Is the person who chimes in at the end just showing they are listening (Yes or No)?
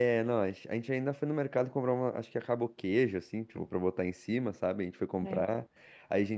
Yes